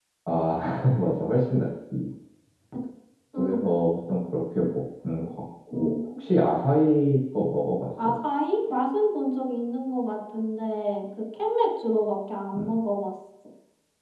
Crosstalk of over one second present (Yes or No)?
No